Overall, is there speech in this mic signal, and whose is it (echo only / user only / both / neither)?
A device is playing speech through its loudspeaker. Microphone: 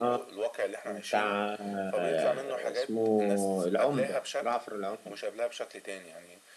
both